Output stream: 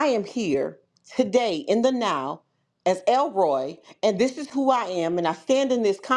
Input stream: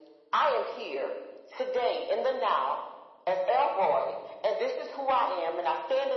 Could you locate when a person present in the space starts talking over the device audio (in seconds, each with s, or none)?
none